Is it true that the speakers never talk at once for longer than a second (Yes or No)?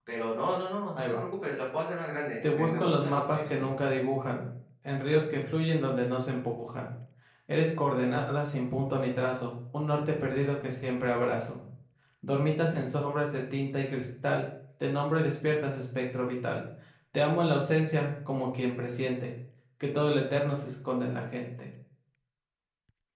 No